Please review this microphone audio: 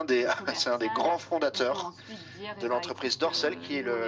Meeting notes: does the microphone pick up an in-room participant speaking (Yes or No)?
Yes